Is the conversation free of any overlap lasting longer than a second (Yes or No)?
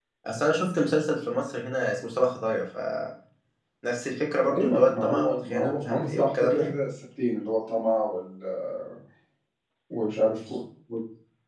No